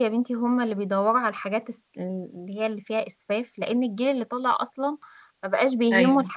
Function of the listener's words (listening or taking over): listening